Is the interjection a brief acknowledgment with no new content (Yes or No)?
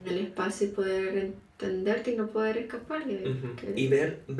No